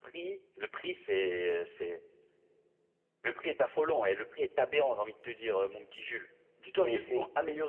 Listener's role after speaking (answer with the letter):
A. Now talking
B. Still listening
B